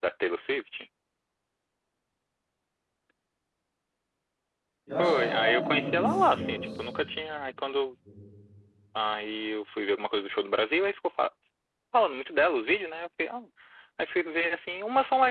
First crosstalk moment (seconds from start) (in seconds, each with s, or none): 5.0 s